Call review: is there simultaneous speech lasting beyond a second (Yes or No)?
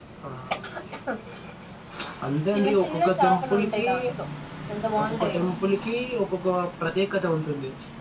Yes